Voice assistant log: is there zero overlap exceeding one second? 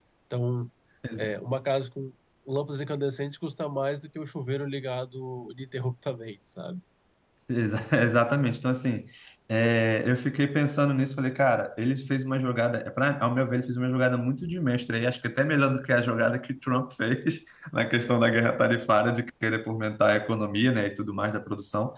Yes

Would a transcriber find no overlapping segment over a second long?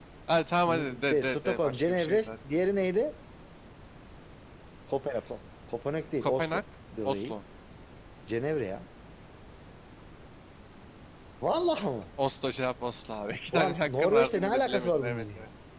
No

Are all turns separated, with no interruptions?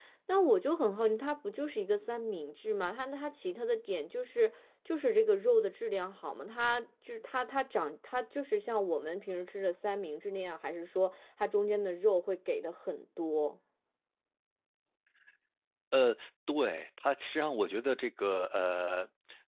Yes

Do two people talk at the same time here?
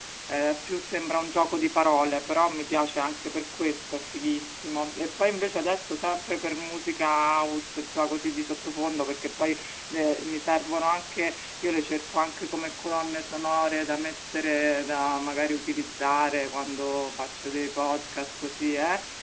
No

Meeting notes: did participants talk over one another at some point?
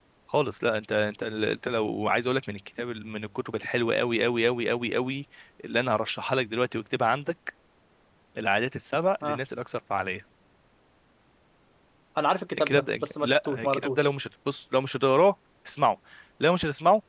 Yes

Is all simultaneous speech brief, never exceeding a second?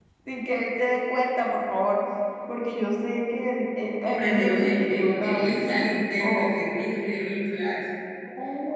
No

